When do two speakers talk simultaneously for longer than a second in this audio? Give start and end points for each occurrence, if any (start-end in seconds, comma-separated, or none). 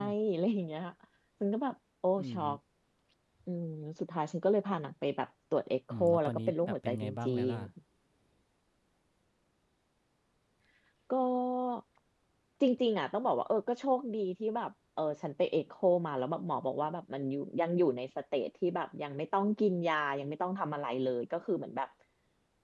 6.0-7.6